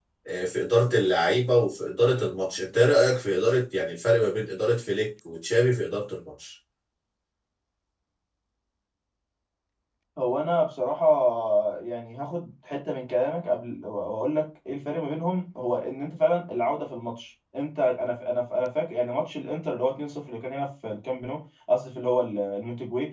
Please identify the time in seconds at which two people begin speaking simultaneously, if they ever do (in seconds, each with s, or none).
none